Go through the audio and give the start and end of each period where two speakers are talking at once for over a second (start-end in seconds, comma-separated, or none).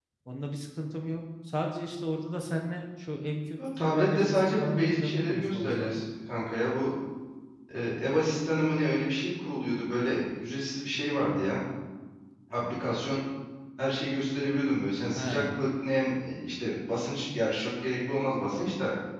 3.8-6.0